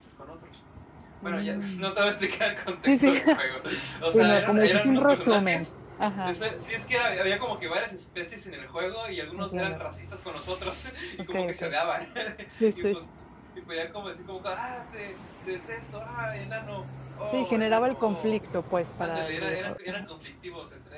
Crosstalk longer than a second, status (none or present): present